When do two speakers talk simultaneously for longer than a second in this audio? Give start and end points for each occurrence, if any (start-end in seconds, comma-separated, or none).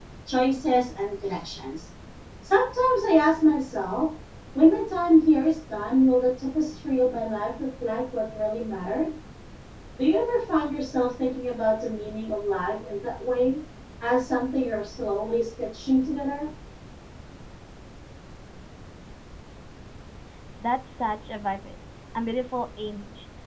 none